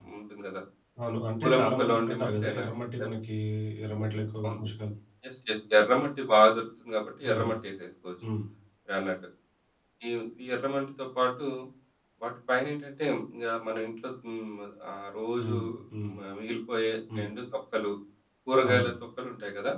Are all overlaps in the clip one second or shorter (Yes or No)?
No